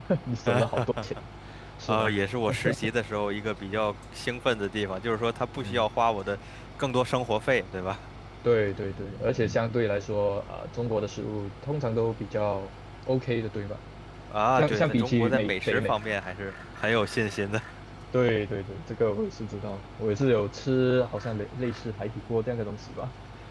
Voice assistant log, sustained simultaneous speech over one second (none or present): present